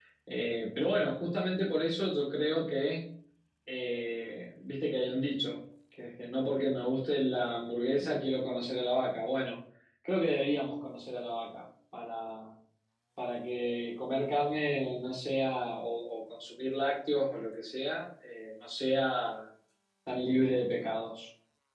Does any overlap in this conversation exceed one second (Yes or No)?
No